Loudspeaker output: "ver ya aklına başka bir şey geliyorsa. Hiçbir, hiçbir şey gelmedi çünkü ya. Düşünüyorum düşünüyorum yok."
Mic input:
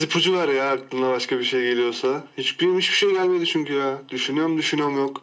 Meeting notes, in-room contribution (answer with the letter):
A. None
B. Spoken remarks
A